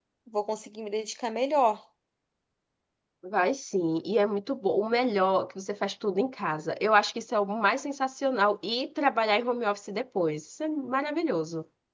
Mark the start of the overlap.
none

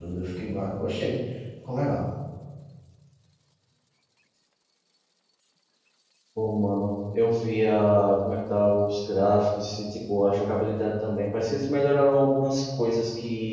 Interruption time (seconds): none

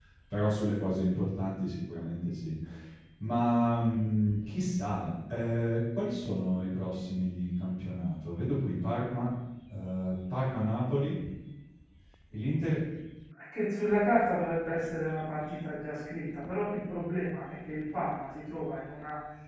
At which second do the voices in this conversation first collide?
none

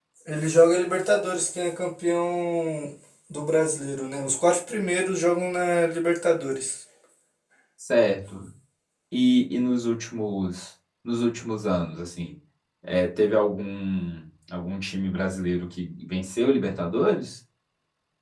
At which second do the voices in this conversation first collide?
none

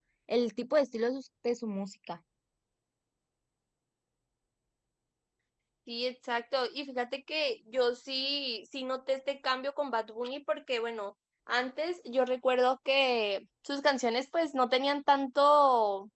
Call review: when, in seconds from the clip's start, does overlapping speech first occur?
none

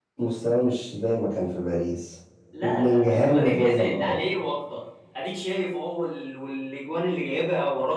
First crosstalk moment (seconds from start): 2.6 s

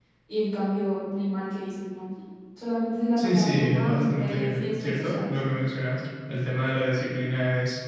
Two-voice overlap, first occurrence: 3.2 s

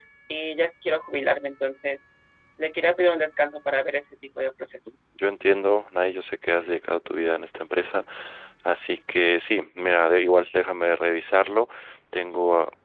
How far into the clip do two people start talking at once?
none

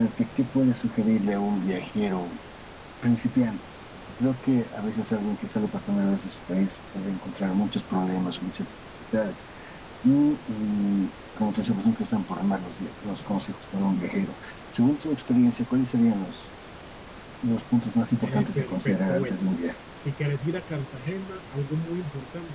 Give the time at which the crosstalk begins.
18.2 s

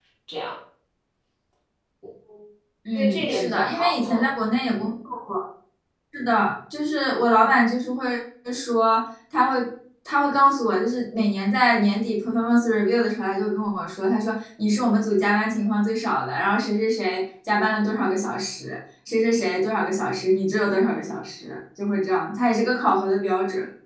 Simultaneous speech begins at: 3.0 s

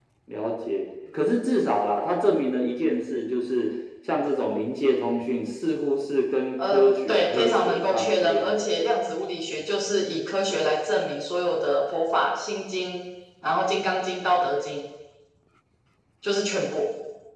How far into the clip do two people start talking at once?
6.6 s

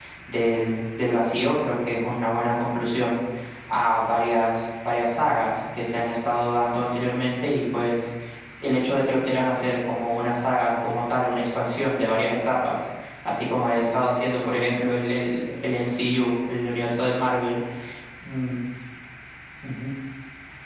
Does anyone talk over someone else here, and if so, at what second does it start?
none

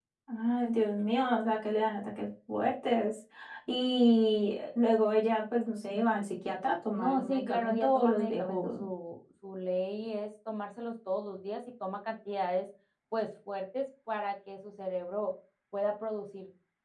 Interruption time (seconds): 7.0 s

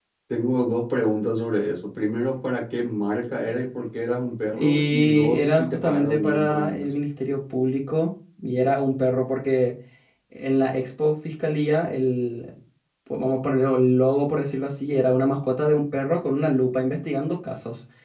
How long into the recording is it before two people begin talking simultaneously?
4.5 s

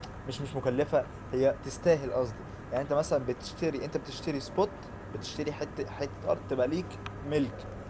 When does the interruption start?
none

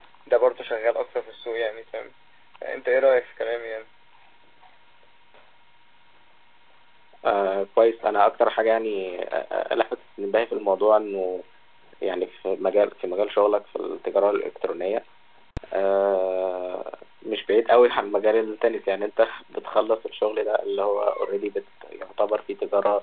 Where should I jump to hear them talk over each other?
none

